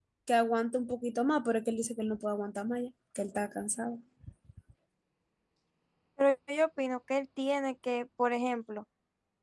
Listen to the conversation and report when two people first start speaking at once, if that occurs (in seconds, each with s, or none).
none